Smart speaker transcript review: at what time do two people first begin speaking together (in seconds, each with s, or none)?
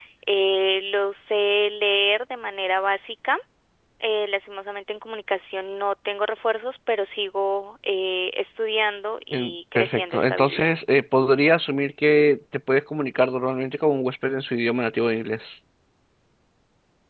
9.3 s